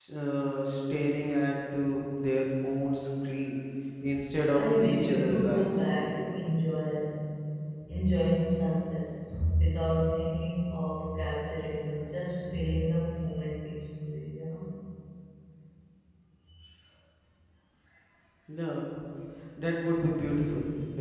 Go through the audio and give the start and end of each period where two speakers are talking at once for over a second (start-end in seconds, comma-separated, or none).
4.5-5.9